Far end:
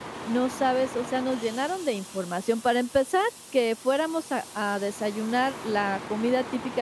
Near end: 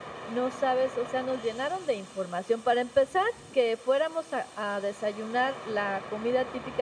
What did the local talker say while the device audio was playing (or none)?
none